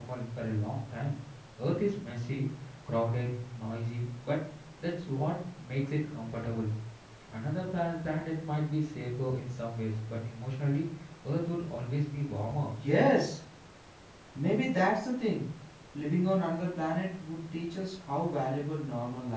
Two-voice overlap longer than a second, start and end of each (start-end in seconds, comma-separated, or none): none